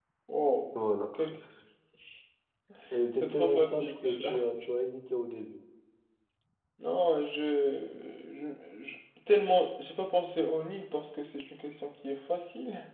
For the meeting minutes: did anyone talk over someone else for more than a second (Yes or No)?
Yes